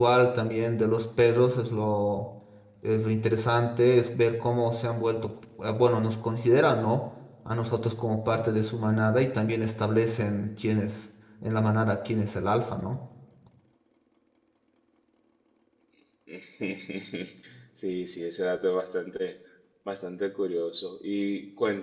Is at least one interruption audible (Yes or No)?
No